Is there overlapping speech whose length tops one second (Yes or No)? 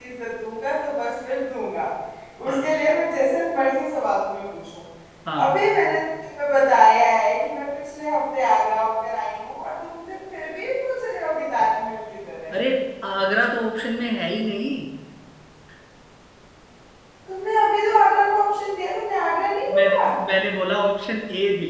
No